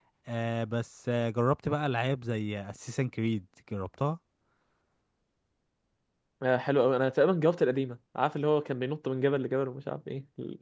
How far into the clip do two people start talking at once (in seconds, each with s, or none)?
none